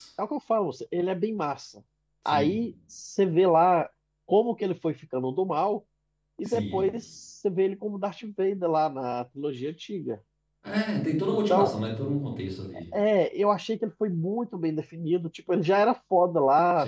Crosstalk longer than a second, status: none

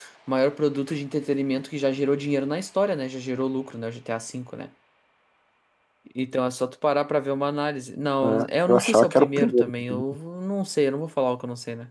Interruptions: present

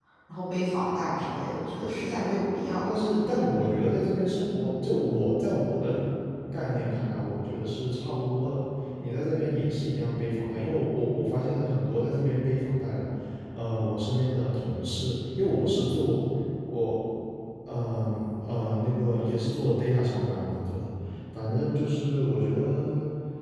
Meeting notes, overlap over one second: none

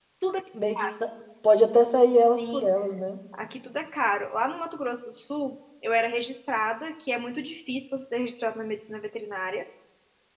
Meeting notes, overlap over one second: none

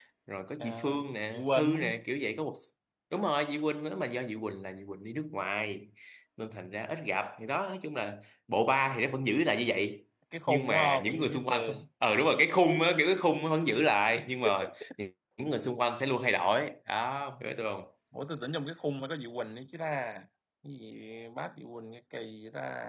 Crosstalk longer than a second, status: present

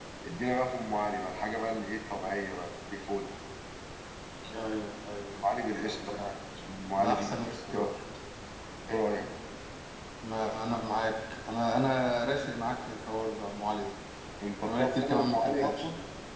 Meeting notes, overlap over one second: present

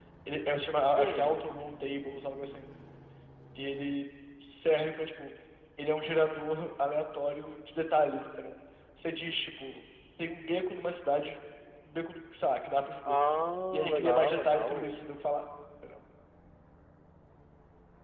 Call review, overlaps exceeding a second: present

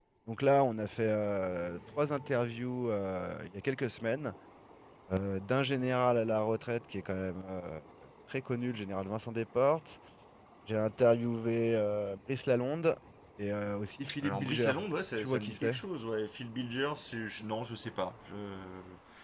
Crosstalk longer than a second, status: present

